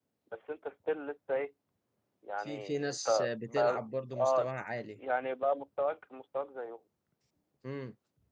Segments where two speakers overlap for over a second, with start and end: 2.4-4.5

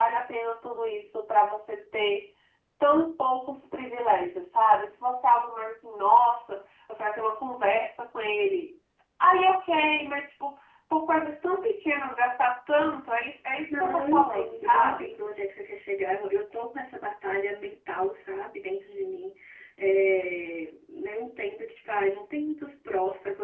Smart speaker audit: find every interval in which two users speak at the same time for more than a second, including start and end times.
13.7-15.2

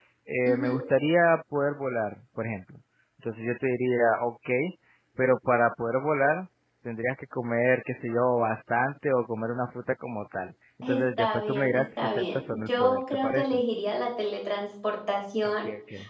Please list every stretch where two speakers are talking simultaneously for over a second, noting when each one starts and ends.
10.8-13.6

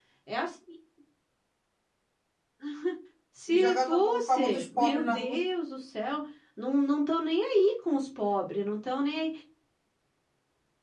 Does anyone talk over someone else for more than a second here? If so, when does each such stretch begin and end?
3.5-5.4

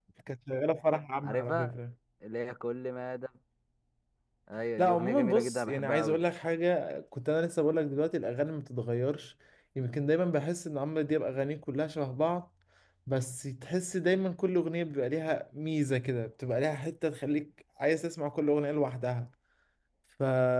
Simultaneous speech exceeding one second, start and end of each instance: 4.8-6.2

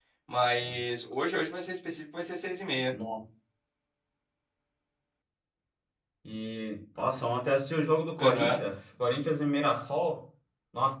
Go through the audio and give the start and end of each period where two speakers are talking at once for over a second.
none

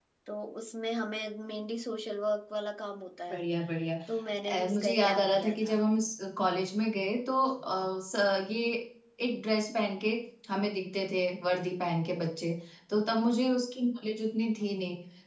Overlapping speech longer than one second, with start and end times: 4.5-5.8

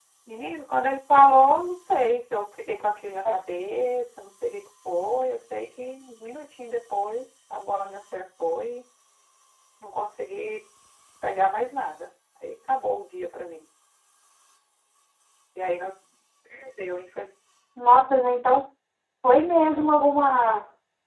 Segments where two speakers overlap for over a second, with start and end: none

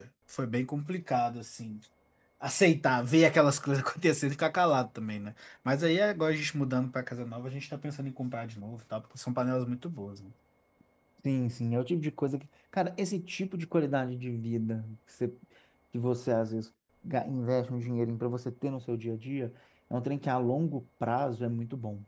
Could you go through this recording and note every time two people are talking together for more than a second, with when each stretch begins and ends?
none

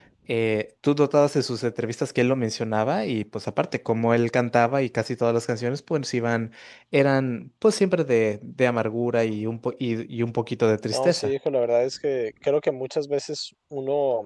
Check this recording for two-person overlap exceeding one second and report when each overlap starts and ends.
none

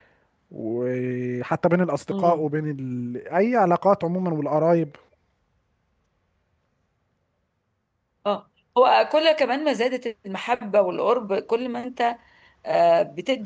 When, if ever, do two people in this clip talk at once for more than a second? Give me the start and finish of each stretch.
none

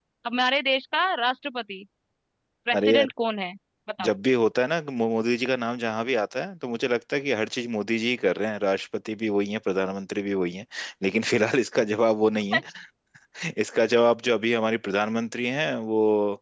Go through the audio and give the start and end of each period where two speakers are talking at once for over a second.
none

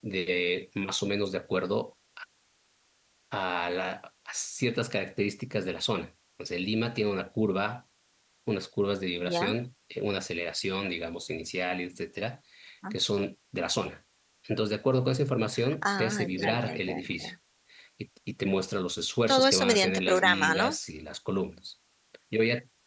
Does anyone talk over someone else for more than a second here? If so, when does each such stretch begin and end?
15.8-17.3, 19.3-20.8

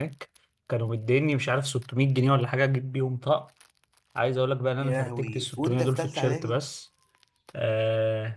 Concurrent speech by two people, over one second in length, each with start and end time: 4.8-6.6

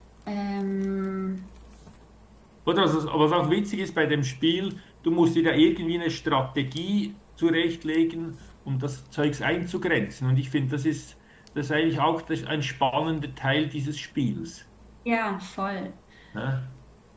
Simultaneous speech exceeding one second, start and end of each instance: none

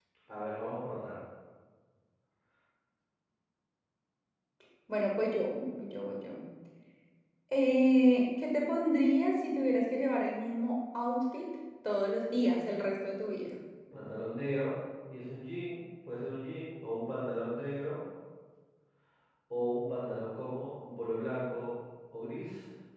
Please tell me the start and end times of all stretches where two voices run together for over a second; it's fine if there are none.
none

